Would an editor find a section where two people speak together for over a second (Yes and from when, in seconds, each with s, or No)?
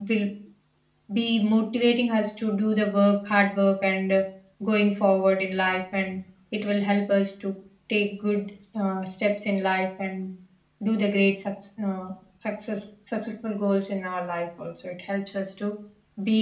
No